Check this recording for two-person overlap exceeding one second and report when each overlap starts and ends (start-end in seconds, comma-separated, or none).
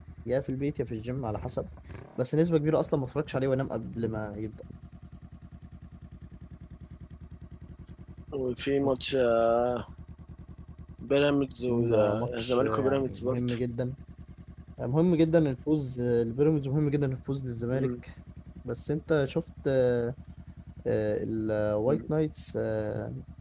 11.7-13.5